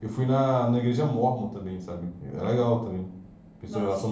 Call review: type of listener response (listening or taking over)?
taking over